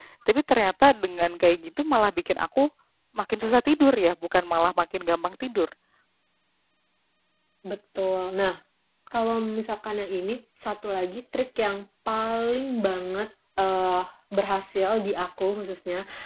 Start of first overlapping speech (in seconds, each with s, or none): none